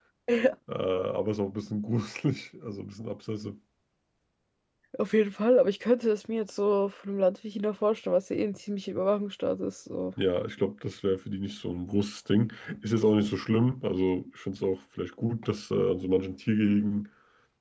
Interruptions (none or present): none